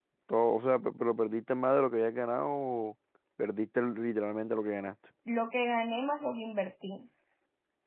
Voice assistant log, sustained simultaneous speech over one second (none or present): none